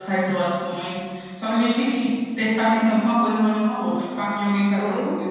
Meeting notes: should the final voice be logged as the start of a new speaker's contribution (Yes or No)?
No